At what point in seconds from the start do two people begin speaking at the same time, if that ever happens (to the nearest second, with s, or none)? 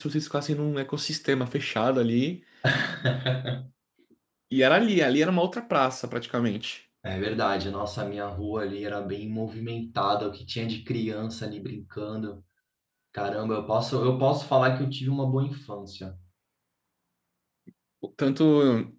none